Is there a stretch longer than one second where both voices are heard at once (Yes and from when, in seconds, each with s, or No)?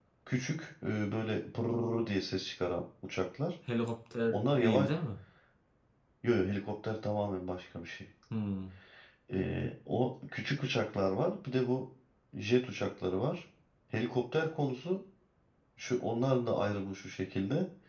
No